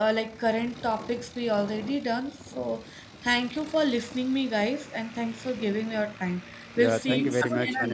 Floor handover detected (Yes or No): Yes